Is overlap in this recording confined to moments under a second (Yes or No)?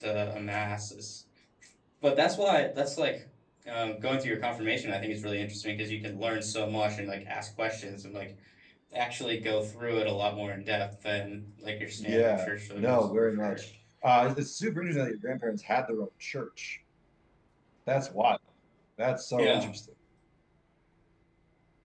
No